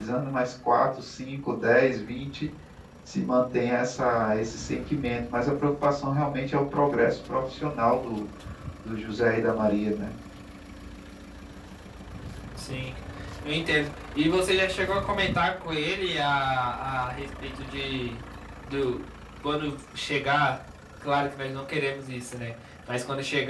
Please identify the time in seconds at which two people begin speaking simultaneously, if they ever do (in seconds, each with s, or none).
none